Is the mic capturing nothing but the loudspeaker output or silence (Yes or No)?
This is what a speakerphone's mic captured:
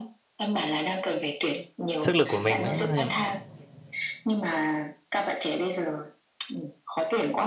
No